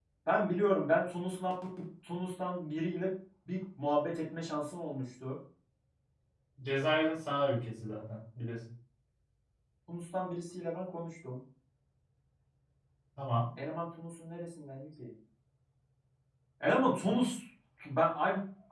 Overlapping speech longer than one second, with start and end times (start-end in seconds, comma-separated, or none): none